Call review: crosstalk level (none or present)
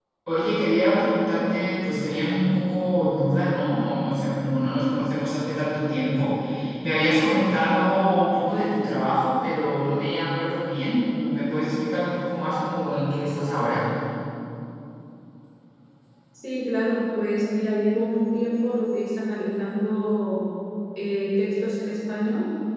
none